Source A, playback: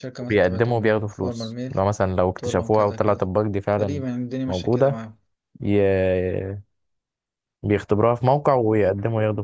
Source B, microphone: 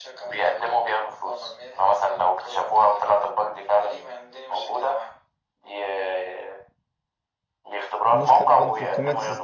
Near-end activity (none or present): present